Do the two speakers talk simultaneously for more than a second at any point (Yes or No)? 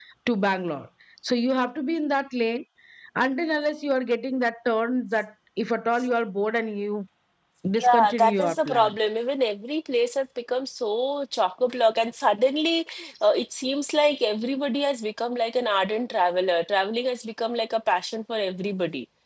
Yes